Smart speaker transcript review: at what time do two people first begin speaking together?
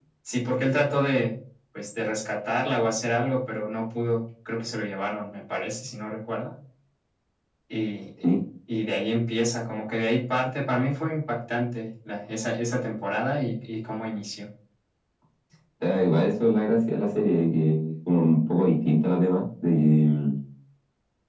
none

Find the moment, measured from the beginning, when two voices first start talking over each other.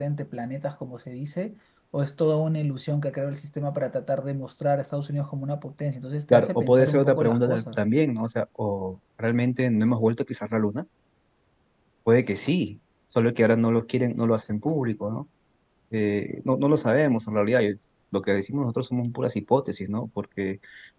6.3 s

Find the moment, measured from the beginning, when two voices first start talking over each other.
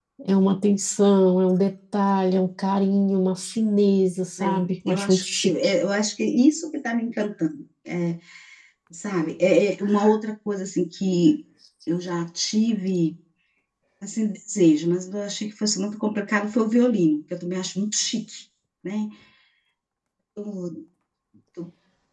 4.4 s

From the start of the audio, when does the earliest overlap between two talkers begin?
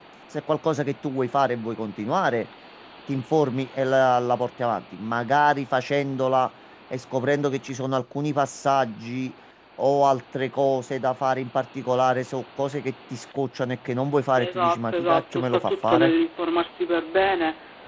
14.4 s

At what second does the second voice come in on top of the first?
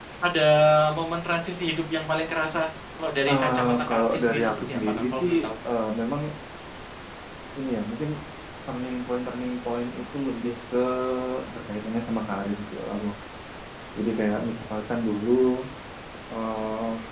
3.3 s

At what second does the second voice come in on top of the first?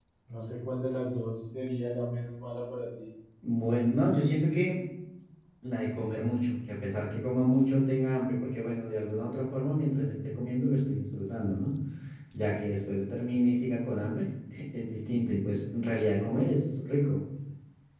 none

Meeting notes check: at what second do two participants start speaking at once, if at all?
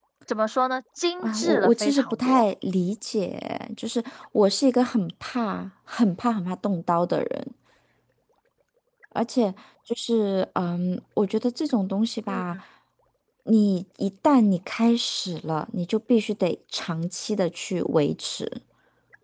1.2 s

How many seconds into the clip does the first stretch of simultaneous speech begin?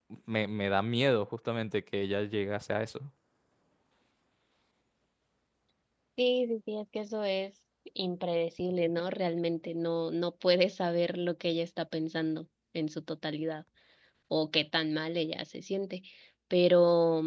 none

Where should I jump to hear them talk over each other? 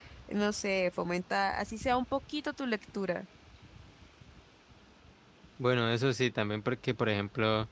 none

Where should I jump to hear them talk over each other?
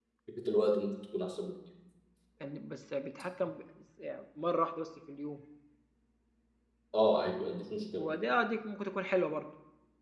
none

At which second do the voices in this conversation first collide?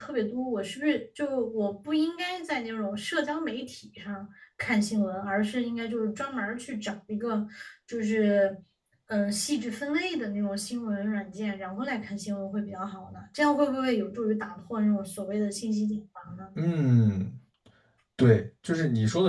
none

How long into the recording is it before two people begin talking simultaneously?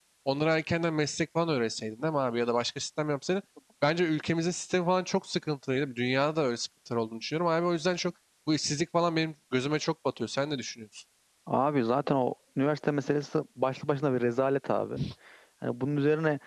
none

